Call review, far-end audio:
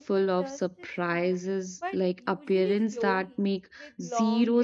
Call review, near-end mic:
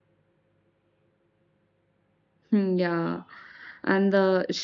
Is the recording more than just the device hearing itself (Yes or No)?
Yes